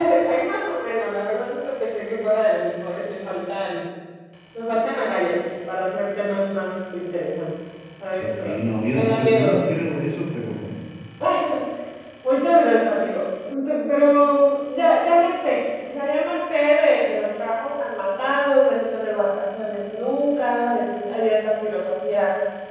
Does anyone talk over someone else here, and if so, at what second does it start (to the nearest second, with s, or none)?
8 s